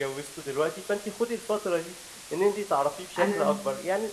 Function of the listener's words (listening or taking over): listening